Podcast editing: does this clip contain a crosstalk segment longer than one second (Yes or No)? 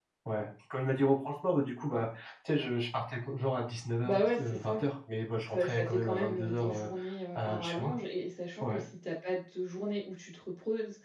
Yes